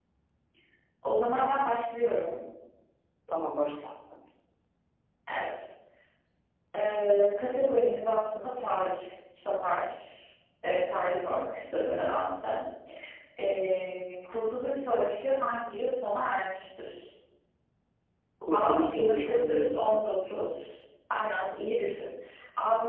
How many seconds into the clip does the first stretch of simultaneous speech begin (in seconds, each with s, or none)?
18.5 s